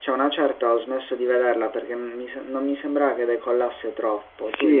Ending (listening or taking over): taking over